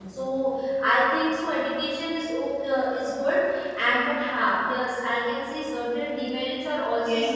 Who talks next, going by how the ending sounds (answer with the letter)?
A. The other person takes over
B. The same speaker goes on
A